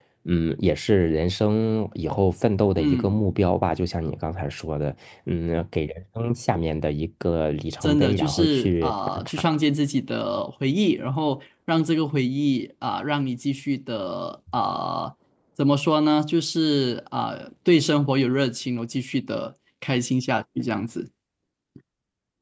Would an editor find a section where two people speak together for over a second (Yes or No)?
Yes